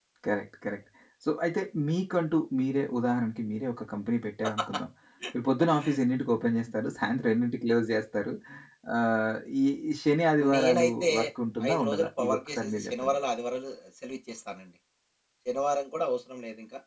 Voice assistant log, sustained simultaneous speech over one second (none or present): present